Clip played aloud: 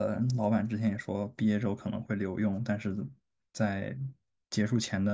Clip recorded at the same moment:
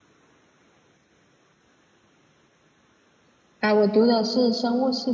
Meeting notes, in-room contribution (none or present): present